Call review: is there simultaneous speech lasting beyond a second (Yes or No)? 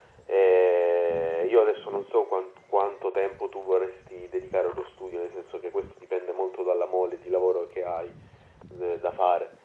No